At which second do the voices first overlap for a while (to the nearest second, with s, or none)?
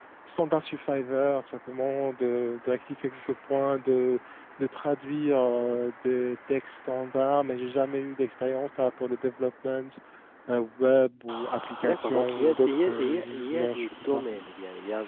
12 s